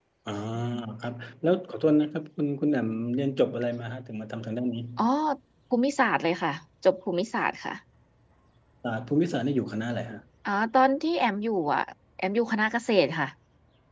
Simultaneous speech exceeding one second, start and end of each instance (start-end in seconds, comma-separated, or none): none